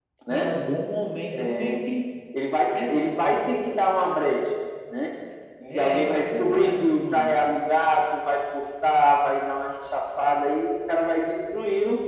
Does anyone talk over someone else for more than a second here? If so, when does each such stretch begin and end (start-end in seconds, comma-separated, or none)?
5.7-7.4